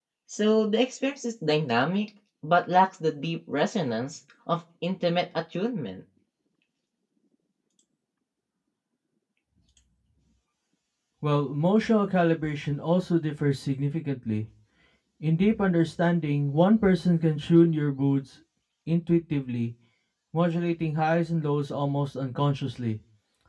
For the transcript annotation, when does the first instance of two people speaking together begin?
none

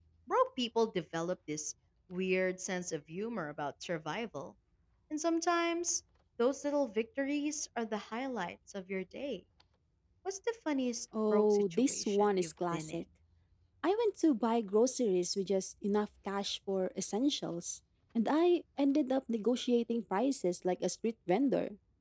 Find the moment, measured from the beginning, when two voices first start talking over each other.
11.1 s

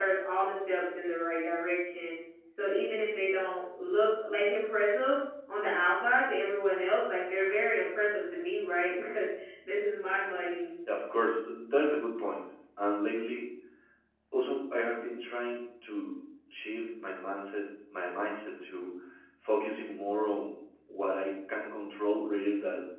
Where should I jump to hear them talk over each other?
none

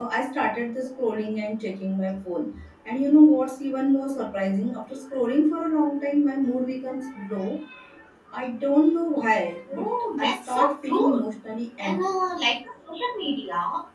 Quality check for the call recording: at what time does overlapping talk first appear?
9.7 s

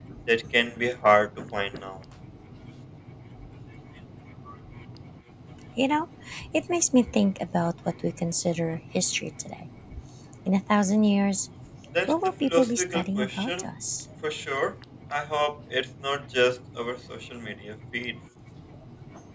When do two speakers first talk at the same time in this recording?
12.1 s

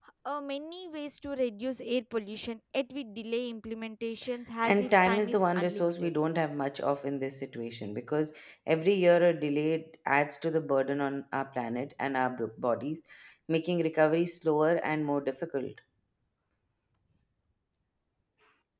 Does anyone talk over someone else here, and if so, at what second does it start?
4.6 s

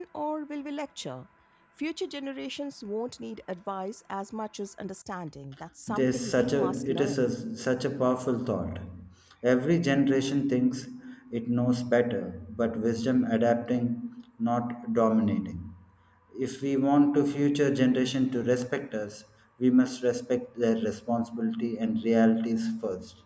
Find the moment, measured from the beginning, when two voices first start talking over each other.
5.9 s

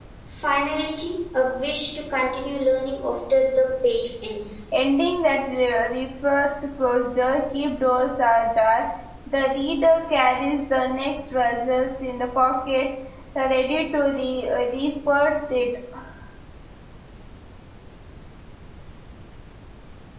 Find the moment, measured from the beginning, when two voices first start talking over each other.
none

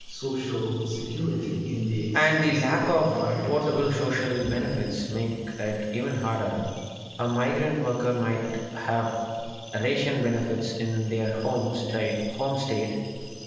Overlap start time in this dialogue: 2.1 s

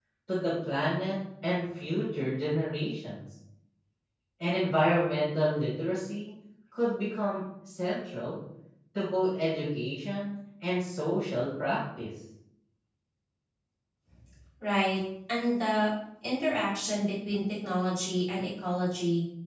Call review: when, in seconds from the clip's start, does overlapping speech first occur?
none

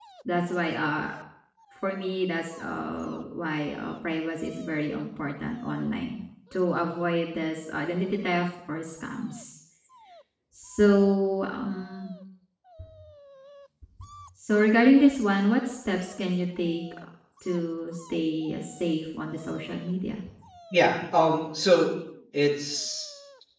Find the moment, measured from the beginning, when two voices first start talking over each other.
none

